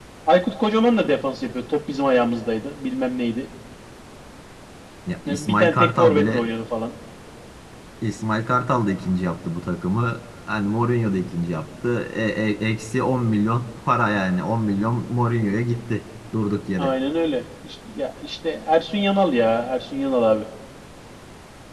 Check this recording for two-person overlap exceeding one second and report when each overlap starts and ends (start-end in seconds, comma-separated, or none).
5.3-6.5